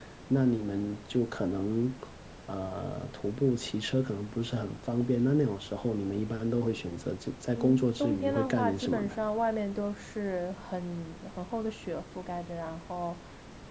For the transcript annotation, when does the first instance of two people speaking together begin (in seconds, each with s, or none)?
7.5 s